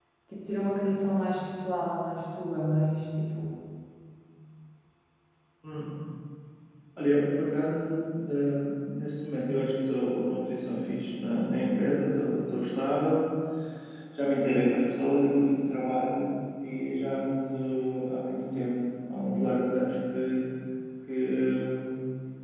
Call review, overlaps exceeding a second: none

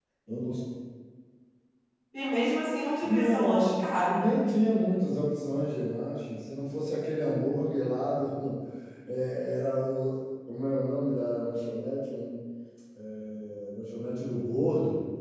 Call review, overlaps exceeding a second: present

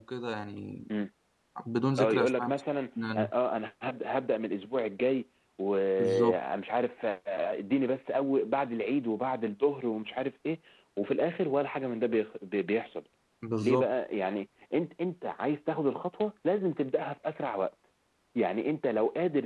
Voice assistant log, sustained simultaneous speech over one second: none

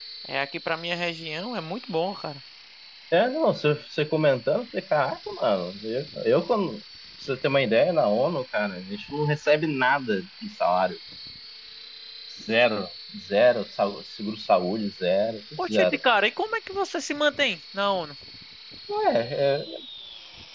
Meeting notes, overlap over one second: none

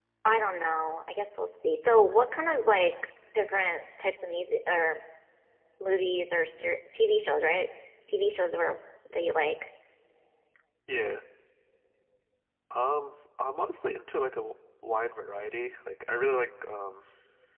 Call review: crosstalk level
none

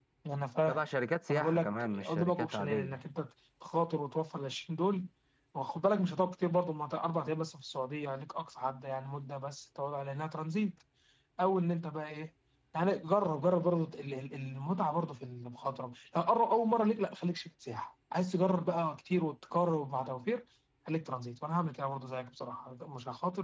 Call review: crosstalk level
present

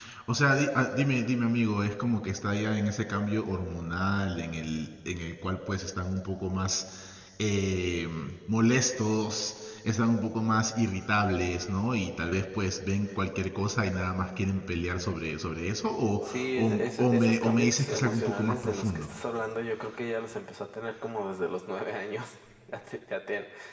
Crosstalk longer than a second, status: present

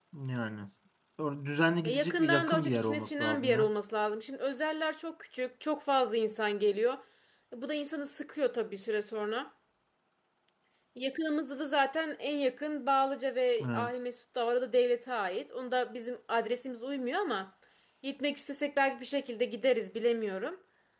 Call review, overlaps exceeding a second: present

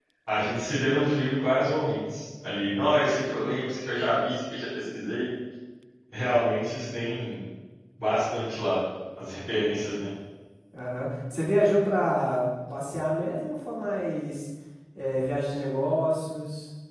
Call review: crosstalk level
none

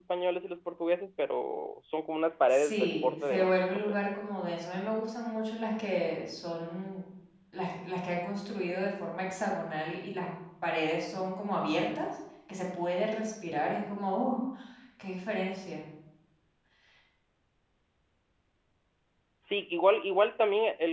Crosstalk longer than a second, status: present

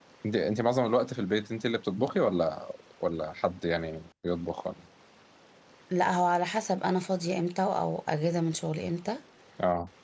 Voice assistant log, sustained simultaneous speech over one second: none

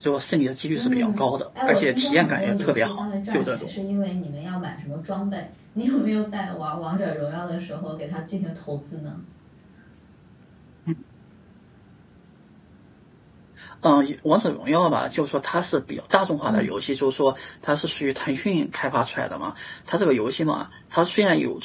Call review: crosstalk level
present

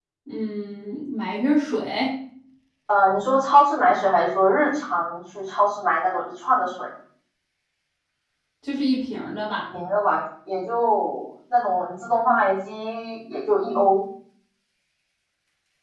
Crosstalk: none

